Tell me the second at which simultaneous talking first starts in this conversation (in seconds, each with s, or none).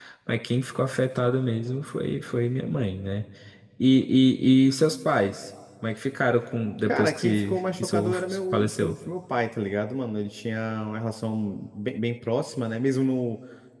6.9 s